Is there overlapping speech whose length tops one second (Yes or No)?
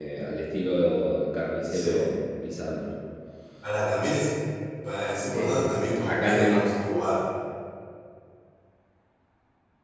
Yes